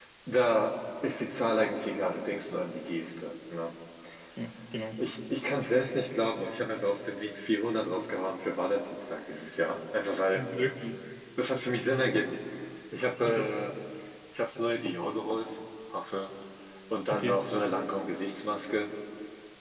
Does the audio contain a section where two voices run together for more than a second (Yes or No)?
No